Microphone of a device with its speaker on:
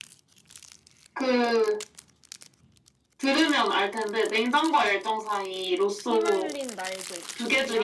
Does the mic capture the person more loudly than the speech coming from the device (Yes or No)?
No